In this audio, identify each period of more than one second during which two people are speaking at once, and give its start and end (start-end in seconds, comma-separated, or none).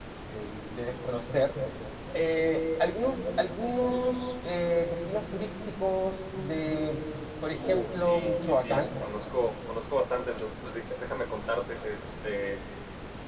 7.5-8.8